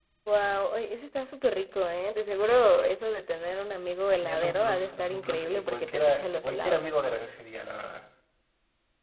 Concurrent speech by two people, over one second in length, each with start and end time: 4.1-6.8

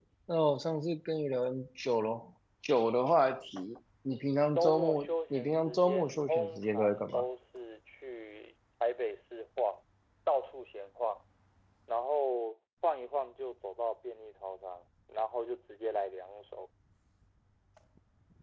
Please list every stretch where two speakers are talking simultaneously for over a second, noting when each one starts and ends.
4.5-7.2

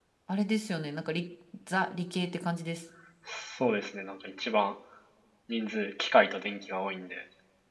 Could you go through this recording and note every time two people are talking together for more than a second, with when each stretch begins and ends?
none

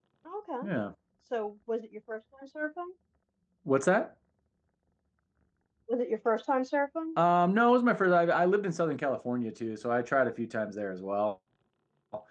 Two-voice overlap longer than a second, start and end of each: none

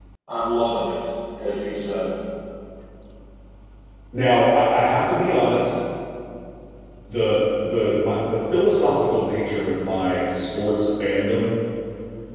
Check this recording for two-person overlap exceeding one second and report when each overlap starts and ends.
none

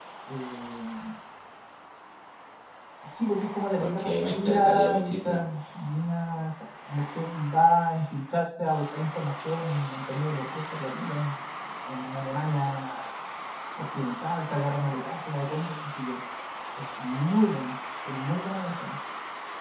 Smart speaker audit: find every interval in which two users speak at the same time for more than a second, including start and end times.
3.8-5.4

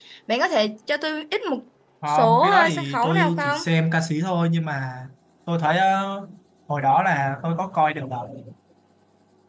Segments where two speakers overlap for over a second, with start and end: 2.1-3.6

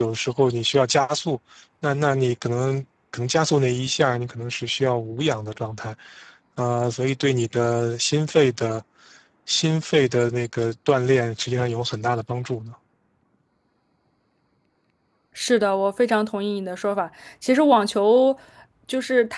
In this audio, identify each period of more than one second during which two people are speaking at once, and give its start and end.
none

